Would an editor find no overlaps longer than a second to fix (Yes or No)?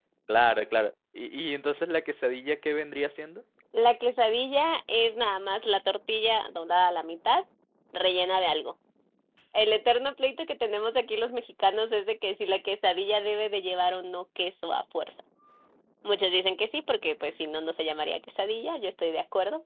Yes